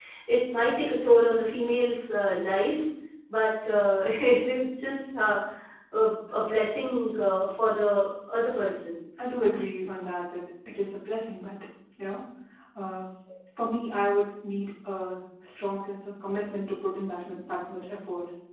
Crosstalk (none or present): none